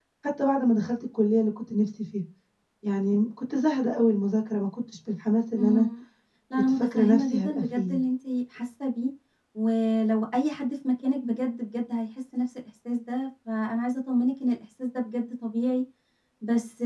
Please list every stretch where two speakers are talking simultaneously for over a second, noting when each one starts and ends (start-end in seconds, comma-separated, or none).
6.5-8.0